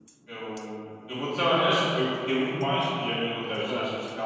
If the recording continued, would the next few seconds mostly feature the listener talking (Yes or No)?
No